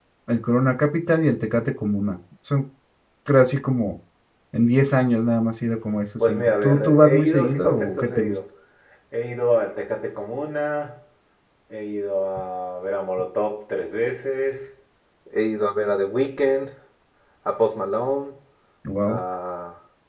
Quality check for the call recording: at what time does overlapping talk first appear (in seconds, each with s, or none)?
6.2 s